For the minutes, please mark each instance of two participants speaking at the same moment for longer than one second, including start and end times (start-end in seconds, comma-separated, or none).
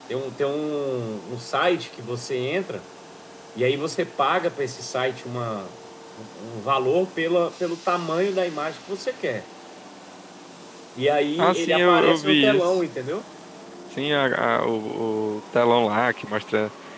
11.4-12.8